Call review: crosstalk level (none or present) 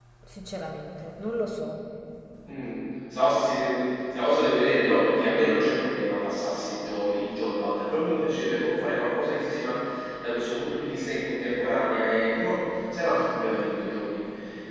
none